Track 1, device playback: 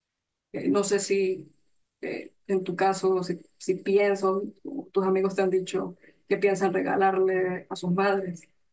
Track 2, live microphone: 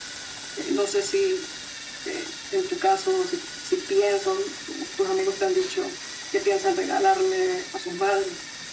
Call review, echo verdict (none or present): present